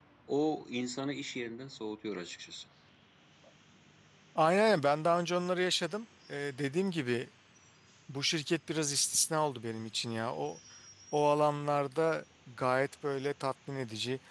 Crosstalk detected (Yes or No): No